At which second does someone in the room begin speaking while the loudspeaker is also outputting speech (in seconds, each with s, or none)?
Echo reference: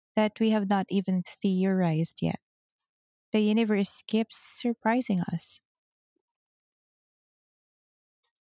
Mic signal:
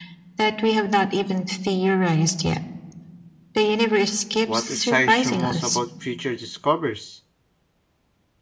4.4 s